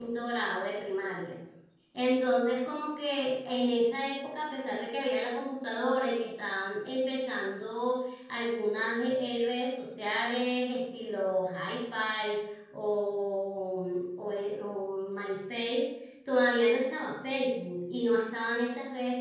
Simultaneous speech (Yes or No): No